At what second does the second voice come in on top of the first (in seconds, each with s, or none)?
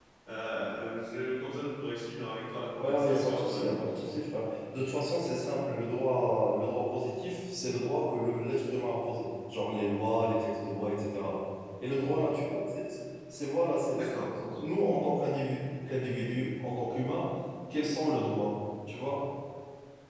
2.8 s